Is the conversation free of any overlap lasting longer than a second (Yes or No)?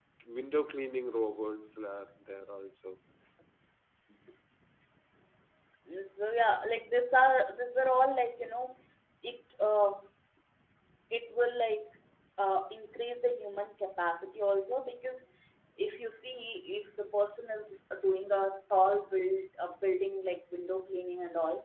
Yes